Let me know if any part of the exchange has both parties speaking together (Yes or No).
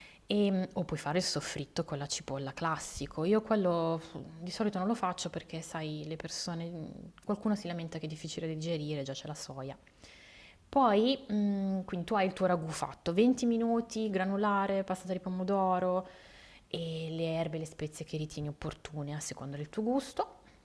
No